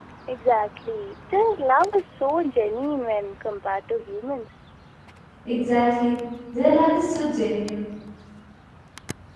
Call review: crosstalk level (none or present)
none